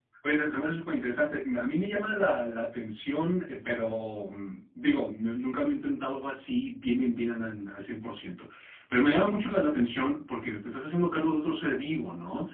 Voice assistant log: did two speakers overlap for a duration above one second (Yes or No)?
No